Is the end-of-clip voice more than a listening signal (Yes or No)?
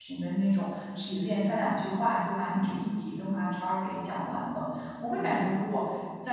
No